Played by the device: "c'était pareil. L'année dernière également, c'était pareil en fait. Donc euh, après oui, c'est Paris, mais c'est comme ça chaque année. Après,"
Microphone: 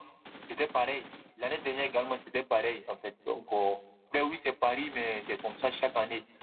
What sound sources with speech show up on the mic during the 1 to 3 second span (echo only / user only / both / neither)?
echo only